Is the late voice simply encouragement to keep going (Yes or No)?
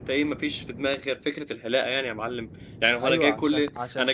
No